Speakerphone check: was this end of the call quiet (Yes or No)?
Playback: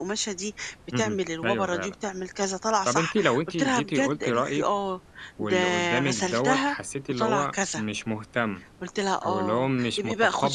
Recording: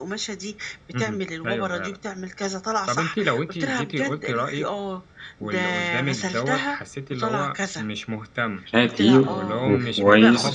No